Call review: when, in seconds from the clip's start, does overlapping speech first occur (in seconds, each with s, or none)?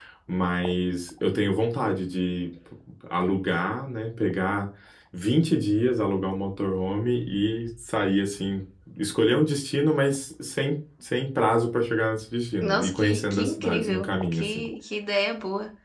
12.6 s